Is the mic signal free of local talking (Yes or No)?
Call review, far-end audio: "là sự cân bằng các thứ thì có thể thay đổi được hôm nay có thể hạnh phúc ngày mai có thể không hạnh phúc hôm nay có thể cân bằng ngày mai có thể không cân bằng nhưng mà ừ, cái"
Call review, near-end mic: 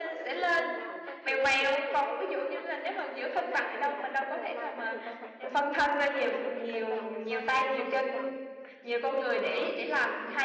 No